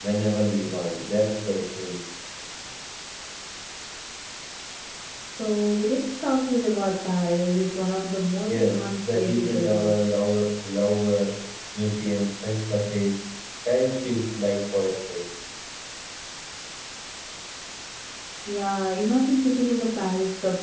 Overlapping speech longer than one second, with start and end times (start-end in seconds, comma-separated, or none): 8.4-10.0